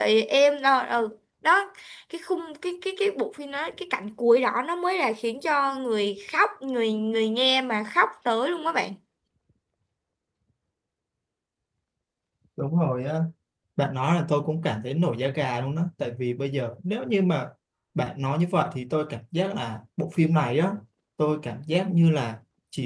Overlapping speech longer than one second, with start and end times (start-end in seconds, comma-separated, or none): none